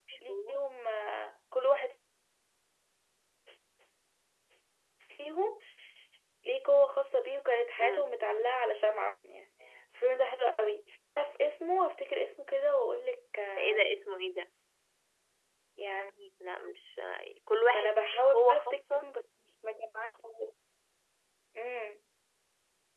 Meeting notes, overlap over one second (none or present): present